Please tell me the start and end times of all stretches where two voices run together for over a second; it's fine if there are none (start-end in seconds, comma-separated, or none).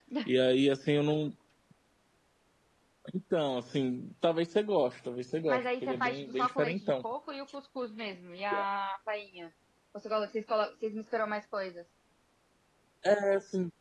5.5-6.9